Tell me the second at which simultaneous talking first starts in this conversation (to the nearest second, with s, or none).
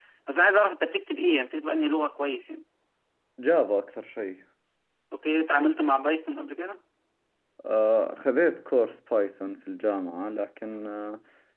none